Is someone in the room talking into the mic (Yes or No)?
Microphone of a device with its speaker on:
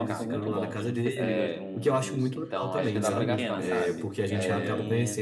Yes